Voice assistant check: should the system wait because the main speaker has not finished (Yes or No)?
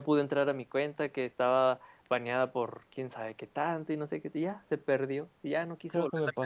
No